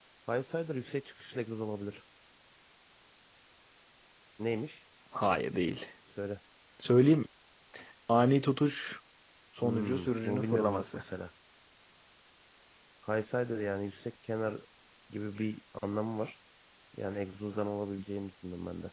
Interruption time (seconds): 10 s

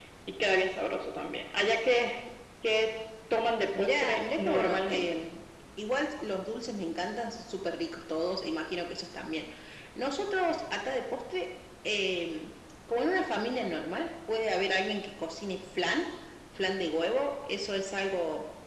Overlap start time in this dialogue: 4 s

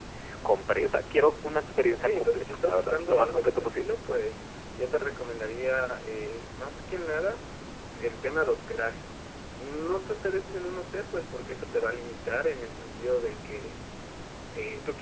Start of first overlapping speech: 2 s

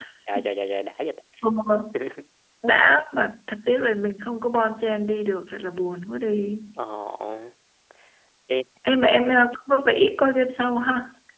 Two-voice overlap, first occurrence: none

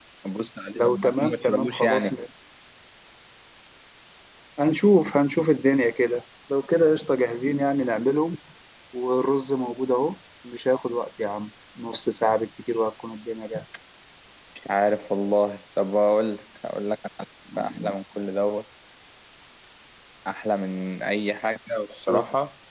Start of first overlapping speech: 1 s

